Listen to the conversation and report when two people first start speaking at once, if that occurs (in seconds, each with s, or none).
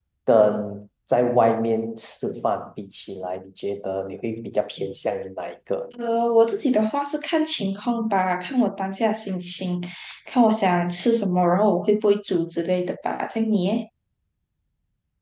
none